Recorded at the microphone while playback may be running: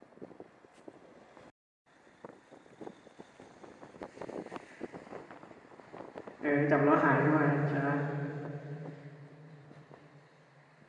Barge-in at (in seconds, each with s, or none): 6.4 s